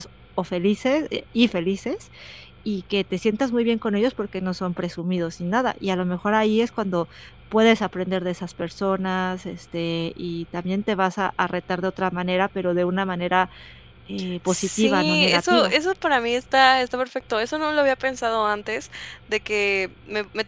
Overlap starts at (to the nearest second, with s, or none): 14 s